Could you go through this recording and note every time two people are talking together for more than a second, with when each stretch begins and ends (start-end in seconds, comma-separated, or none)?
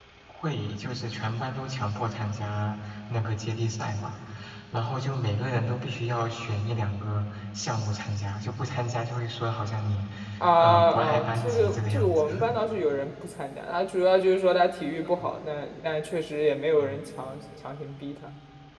10.6-12.4